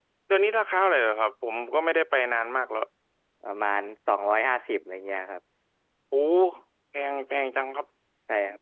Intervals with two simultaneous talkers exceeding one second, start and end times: none

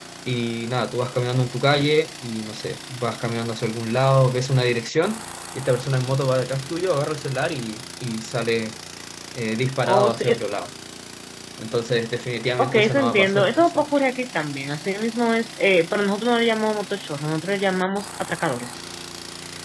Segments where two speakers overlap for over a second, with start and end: 12.6-13.9

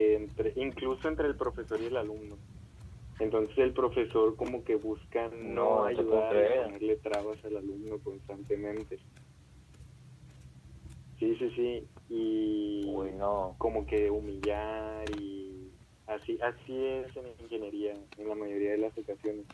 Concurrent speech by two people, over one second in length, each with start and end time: 5.5-6.7

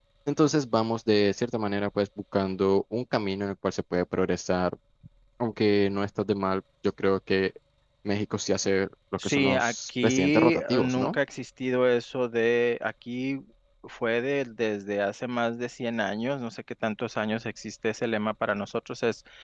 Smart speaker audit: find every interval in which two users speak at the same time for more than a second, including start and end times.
9.2-11.2

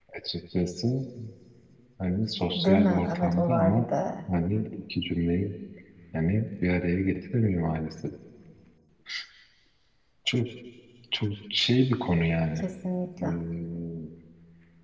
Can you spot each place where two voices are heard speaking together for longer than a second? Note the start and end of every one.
2.5-3.9

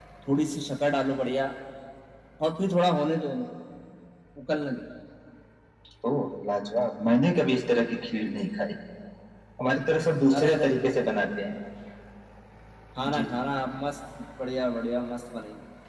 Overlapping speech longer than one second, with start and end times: none

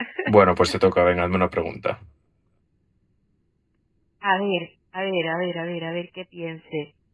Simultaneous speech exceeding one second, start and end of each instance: none

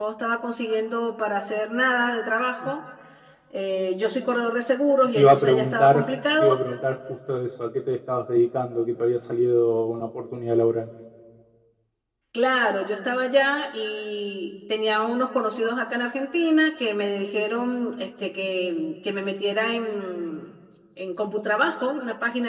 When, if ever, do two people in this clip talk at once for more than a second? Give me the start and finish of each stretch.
5.2-6.5

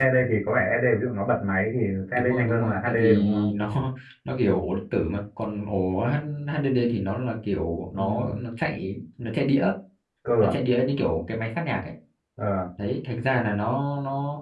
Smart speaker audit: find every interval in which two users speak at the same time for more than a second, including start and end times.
2.1-3.5

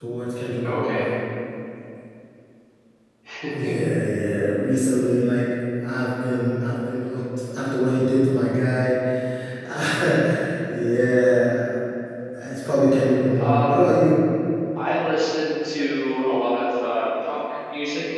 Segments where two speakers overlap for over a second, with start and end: none

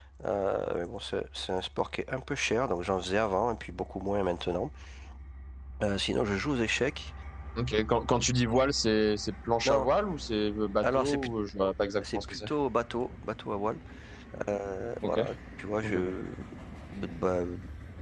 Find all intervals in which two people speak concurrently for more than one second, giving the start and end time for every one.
none

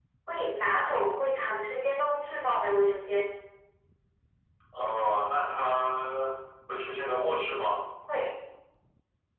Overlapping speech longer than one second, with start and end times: none

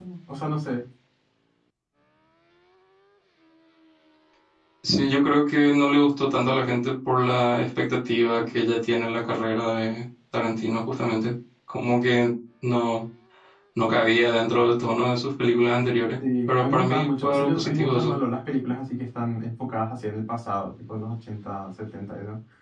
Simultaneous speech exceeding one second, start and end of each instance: 16.5-18.1

